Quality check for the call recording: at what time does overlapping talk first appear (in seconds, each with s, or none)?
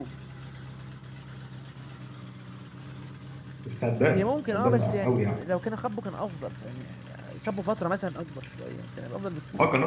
4.1 s